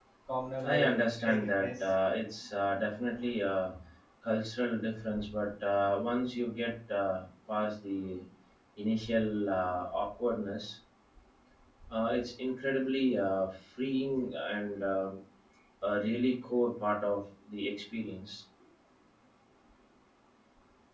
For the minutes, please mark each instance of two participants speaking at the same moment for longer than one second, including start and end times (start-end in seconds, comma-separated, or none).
0.6-1.9